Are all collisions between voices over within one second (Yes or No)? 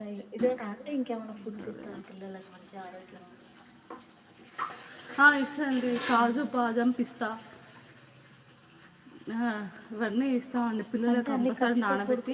No